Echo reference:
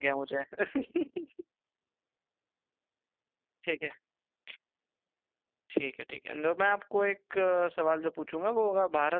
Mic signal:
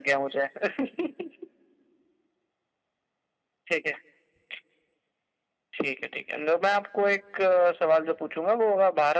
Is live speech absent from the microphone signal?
Yes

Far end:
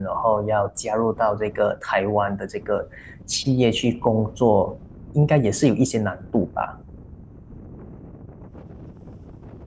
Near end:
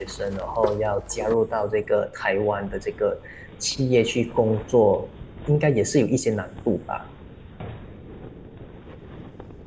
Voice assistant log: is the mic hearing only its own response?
Yes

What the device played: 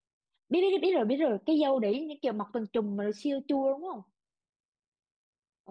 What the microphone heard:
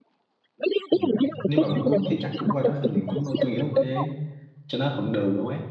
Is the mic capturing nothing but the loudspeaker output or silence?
No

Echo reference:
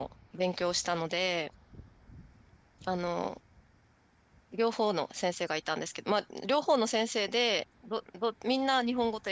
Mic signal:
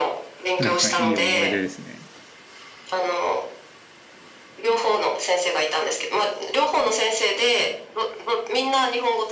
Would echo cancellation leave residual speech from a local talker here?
Yes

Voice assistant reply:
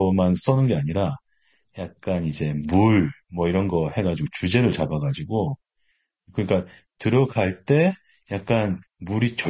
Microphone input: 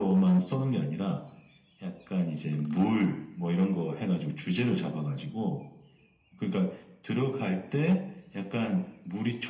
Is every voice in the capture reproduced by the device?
Yes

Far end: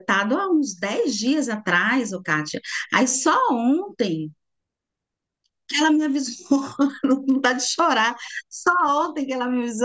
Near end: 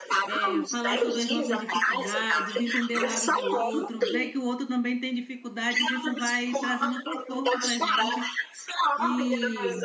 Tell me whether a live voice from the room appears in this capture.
Yes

